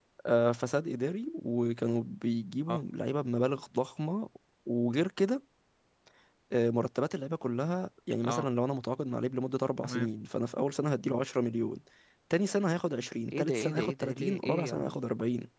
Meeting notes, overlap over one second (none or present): present